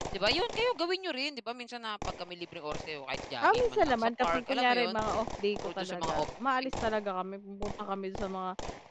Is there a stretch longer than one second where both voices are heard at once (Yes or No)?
Yes